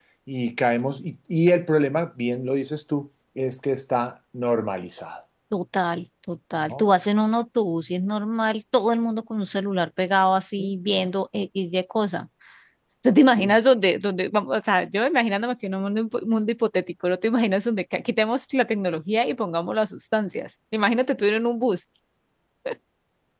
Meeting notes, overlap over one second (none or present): none